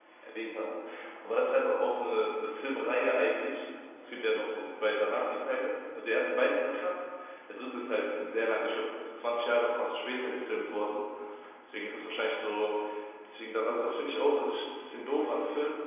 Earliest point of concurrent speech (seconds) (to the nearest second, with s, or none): none